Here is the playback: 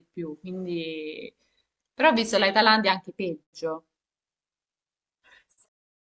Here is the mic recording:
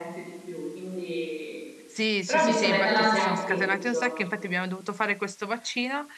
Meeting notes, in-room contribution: present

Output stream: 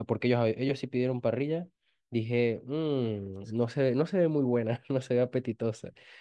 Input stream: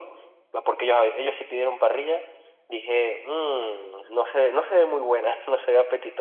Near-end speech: none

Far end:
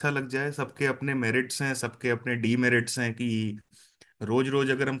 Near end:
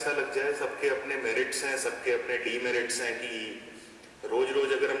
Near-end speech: none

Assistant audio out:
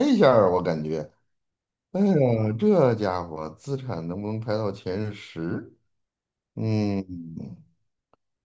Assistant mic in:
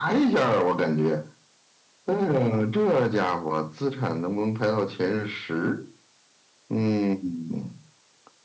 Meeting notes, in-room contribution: none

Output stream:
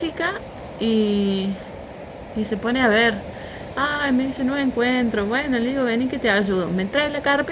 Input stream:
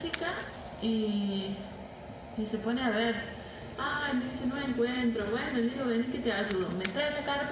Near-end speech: none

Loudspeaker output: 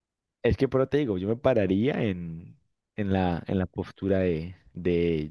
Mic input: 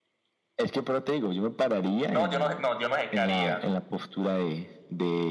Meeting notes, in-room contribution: present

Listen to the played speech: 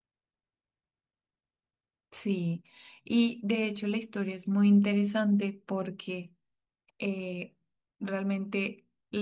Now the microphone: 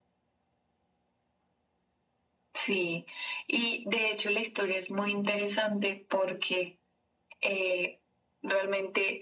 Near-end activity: none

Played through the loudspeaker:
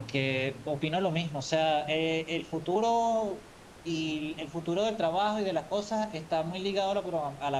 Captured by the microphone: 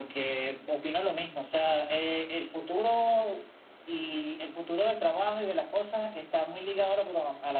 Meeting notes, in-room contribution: none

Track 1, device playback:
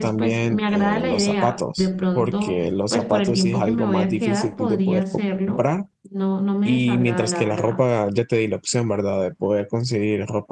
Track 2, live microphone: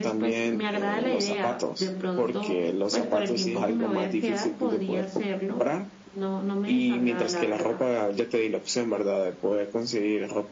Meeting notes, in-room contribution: none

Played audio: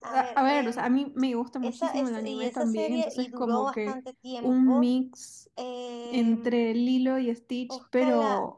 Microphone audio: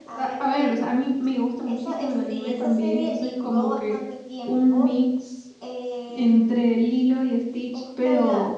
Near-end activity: none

